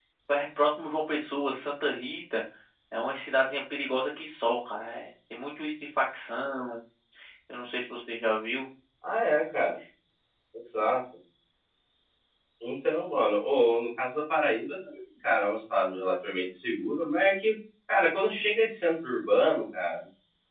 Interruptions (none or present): none